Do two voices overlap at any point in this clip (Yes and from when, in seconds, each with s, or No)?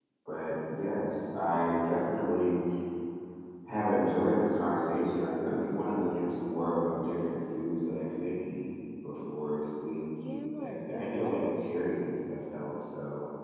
Yes, from 10.2 s